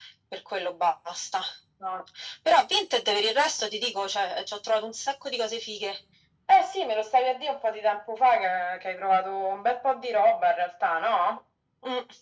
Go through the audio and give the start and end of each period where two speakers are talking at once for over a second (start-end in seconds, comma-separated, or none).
none